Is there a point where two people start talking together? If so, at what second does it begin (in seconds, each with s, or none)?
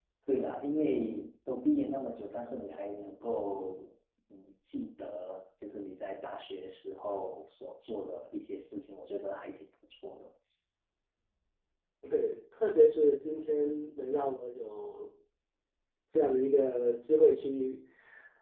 none